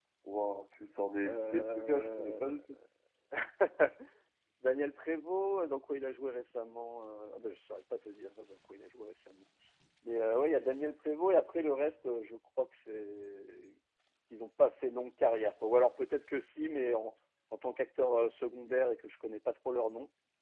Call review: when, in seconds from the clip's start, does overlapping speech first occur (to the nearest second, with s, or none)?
1 s